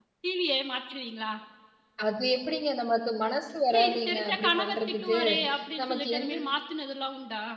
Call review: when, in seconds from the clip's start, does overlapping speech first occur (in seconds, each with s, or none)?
3.7 s